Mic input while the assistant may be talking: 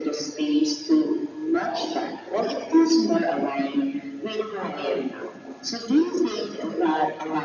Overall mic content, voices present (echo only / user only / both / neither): echo only